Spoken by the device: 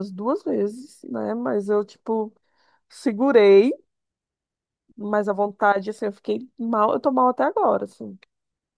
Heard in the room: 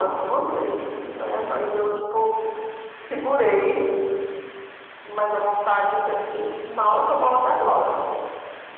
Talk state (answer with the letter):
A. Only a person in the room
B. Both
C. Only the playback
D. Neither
C